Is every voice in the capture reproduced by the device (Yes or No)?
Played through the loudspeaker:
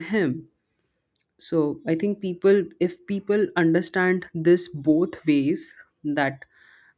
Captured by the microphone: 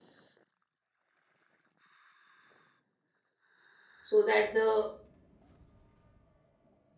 No